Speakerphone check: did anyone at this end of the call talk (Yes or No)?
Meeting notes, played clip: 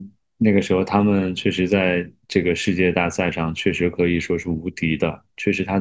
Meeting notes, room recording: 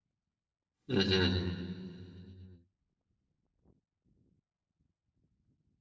Yes